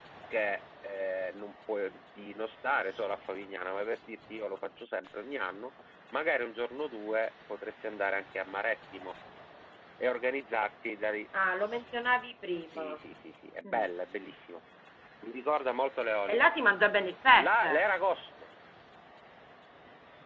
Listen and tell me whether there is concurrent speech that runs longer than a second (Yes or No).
No